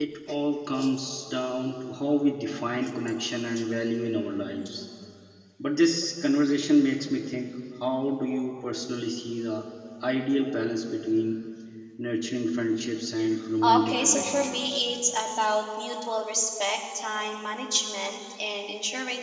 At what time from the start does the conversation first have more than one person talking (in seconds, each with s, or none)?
13.6 s